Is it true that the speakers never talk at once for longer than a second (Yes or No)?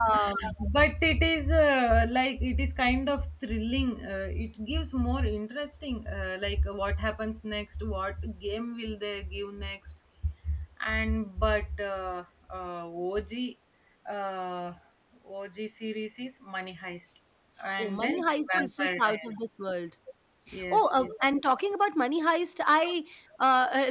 No